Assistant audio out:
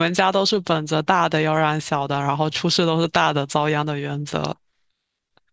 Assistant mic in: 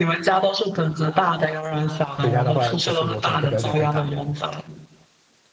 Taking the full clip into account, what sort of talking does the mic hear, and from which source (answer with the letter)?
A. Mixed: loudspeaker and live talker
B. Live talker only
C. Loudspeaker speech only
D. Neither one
A